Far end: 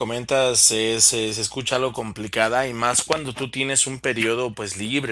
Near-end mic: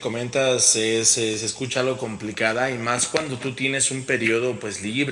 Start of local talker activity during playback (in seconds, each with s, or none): none